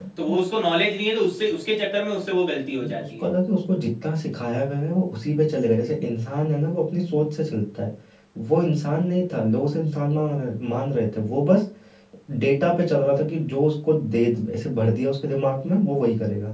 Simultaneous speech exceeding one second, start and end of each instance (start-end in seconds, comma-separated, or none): none